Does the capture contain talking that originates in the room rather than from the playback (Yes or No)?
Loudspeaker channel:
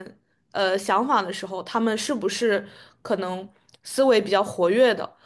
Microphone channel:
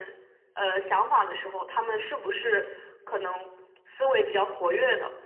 No